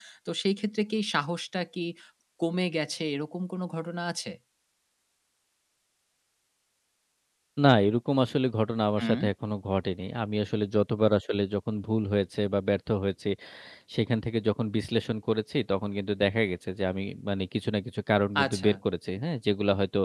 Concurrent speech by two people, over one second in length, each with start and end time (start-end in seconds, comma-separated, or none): none